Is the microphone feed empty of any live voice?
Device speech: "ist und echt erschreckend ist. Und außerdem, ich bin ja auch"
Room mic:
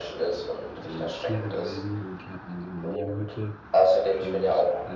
No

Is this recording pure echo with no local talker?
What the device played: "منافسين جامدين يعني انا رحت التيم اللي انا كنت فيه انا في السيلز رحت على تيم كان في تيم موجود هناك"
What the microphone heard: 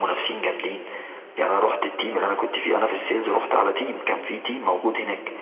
Yes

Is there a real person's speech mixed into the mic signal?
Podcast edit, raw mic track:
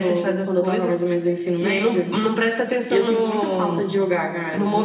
No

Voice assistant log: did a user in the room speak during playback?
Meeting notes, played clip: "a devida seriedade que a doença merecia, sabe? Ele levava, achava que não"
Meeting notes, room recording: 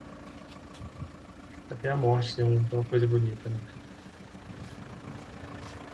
Yes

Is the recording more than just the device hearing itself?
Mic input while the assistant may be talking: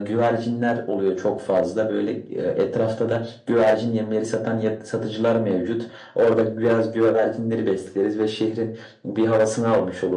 No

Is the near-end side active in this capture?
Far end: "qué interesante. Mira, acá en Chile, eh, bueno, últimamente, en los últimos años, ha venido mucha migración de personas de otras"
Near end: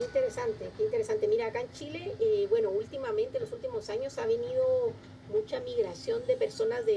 No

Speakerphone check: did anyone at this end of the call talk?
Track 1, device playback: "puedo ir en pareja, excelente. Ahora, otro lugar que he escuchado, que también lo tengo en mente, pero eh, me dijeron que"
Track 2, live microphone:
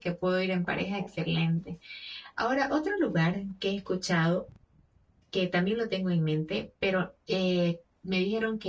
Yes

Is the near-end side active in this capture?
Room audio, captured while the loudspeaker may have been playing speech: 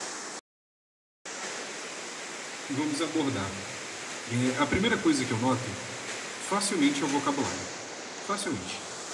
Yes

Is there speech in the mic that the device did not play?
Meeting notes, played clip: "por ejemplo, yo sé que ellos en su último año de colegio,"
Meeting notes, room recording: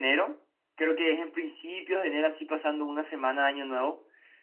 Yes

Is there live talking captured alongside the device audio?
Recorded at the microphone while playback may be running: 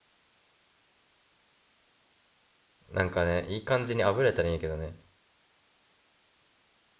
Yes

